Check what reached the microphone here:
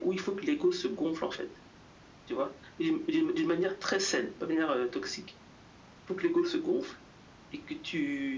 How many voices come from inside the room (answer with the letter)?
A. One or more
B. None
B